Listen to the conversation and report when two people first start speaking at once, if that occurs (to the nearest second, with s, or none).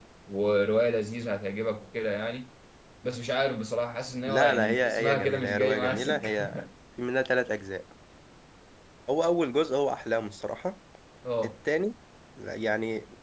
4 s